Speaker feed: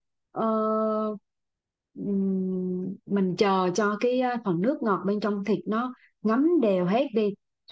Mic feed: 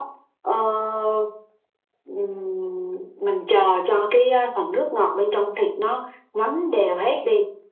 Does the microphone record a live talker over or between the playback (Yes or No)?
No